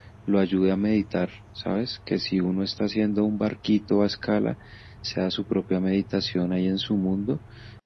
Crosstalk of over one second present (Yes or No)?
No